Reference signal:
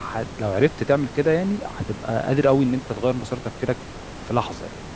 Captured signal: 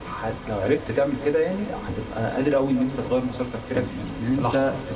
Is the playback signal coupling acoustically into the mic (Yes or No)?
Yes